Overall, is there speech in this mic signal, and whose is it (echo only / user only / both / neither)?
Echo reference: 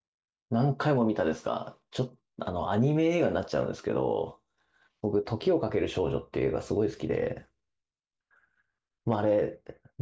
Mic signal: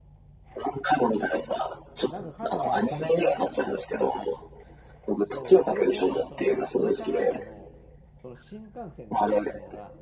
both